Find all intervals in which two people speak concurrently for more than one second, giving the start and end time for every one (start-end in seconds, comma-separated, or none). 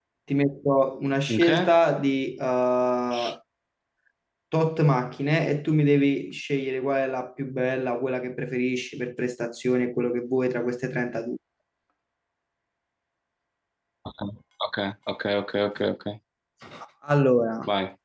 none